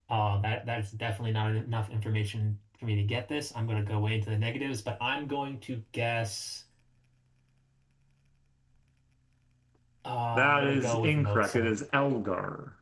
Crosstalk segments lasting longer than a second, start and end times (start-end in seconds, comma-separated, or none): 10.5-11.7